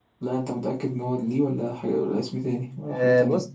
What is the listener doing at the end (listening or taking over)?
taking over